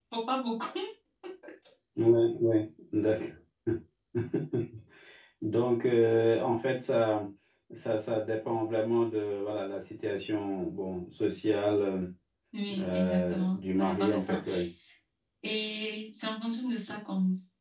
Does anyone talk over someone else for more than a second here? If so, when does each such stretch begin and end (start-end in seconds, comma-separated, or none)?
12.8-14.4